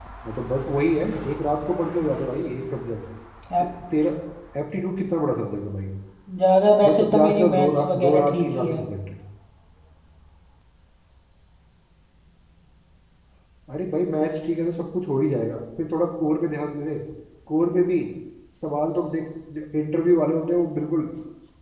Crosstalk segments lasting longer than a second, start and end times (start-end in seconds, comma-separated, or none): 6.8-8.8